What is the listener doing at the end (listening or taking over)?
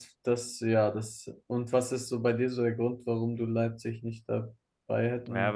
taking over